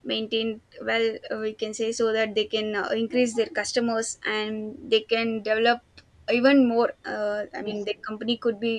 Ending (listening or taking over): listening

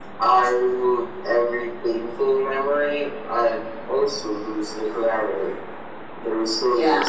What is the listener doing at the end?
listening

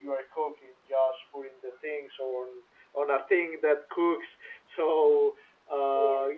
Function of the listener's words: listening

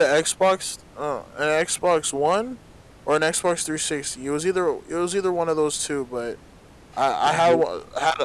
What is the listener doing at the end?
listening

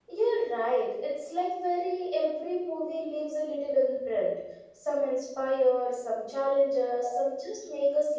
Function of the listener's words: listening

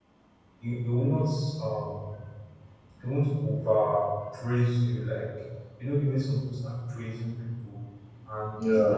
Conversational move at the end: listening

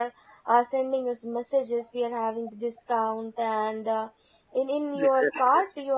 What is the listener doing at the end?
listening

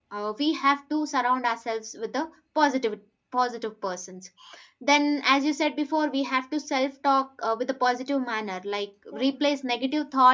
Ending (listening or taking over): listening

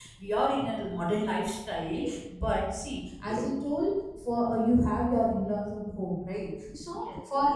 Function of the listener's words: listening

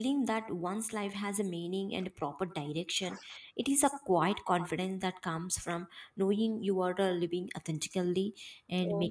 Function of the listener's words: listening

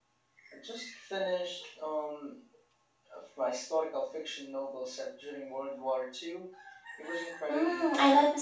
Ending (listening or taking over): taking over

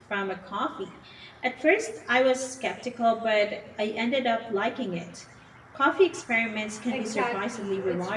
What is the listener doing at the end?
taking over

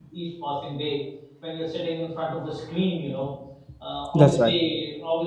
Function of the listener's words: listening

